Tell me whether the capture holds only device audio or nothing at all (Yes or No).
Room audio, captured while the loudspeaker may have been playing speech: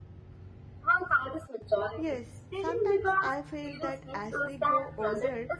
No